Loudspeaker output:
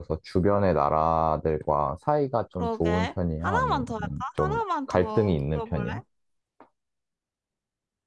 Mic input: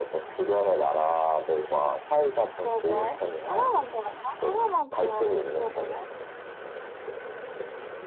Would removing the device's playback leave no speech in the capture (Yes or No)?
Yes